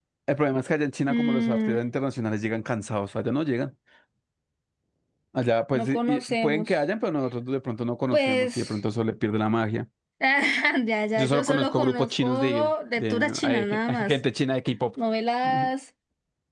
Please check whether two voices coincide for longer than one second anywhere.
Yes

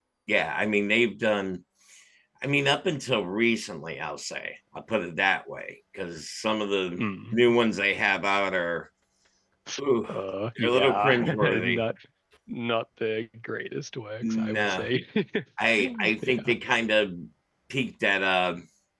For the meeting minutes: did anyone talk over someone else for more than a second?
Yes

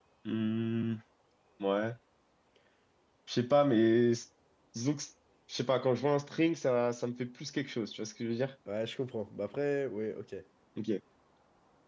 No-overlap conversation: Yes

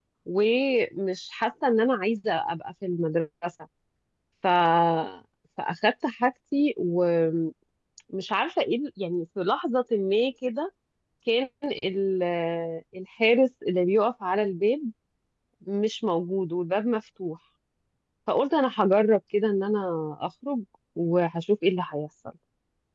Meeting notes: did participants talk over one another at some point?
No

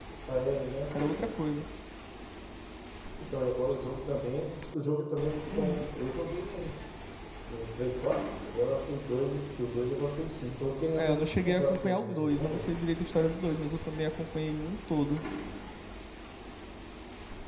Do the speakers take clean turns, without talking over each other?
No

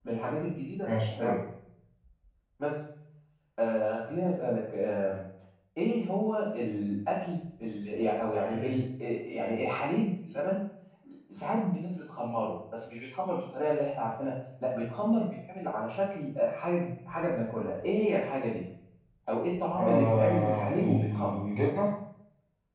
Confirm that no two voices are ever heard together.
No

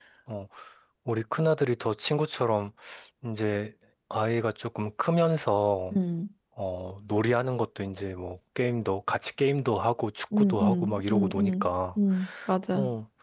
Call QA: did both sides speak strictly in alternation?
No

